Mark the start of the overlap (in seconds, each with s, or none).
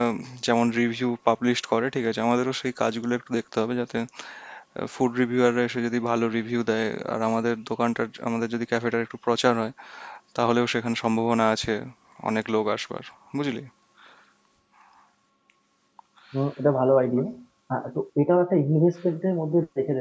none